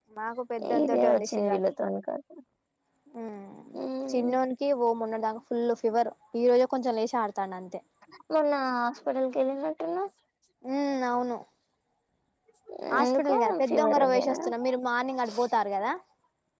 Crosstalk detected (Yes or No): Yes